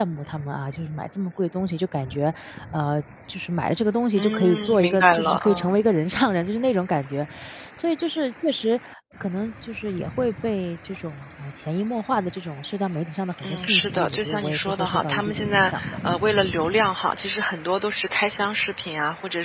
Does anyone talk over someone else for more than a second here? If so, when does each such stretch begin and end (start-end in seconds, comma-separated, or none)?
4.2-5.7, 13.4-16.1